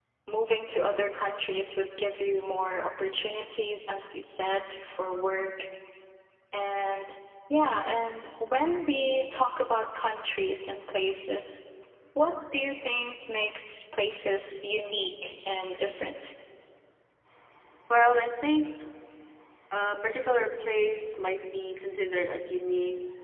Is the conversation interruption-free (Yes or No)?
Yes